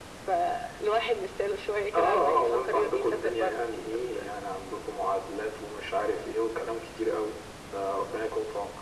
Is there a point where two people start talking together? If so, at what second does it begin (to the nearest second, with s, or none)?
2 s